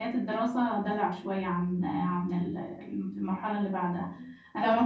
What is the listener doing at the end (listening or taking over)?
listening